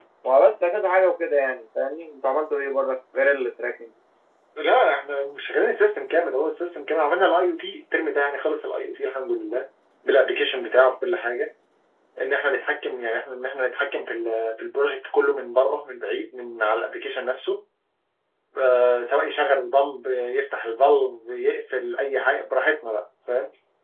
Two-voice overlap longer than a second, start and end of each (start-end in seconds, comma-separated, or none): none